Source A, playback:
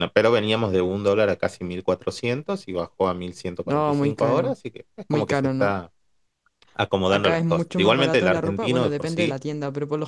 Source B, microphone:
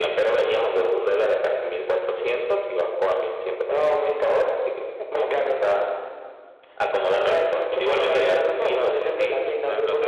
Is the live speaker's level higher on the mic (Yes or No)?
No